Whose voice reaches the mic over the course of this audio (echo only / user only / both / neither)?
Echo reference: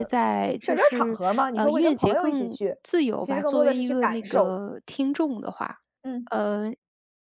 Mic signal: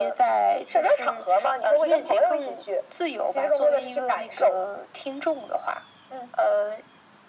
echo only